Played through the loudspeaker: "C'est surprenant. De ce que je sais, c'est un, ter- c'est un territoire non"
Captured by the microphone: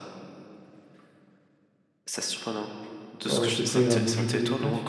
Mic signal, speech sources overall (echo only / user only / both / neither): both